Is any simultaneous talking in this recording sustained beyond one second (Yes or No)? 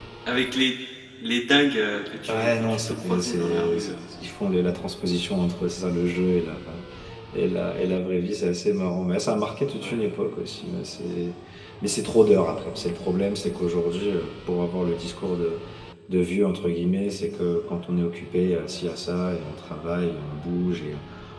Yes